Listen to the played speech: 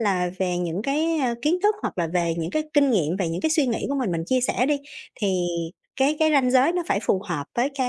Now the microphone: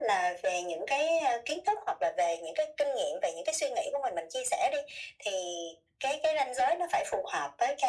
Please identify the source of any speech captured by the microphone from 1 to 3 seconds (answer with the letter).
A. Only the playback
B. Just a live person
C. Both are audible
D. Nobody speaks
A